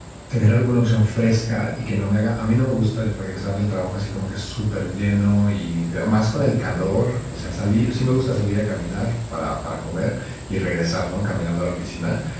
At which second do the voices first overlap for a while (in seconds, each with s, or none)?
none